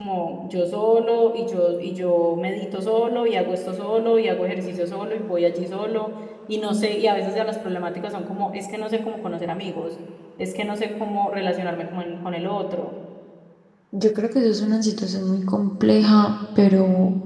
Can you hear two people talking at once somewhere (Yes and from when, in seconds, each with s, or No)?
No